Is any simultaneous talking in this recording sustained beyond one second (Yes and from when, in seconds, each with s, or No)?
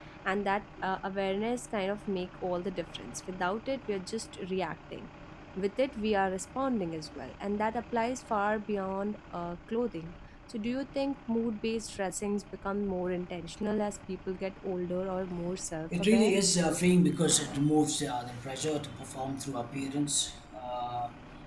No